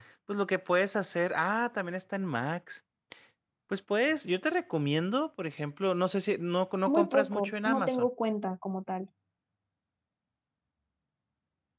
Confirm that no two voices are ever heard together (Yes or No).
No